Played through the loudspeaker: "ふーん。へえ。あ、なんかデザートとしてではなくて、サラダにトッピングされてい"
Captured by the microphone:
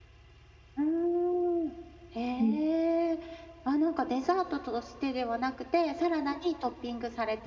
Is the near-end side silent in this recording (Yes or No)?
No